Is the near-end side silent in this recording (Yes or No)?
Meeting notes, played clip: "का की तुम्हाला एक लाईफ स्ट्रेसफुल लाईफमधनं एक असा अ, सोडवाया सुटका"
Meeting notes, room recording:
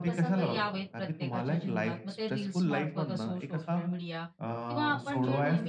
No